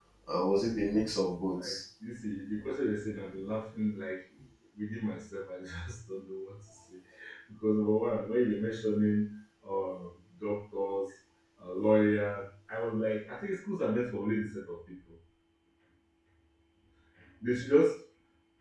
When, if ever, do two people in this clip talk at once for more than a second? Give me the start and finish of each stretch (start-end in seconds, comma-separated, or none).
none